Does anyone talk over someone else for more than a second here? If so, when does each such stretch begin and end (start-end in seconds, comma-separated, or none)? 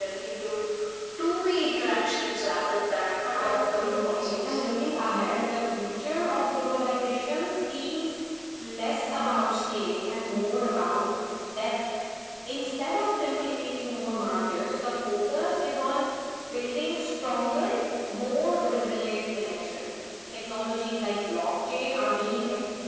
3.3-4.6